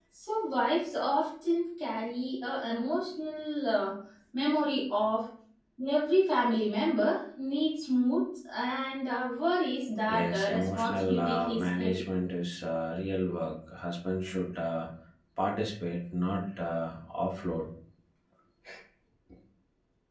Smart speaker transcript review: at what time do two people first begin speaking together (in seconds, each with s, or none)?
10.1 s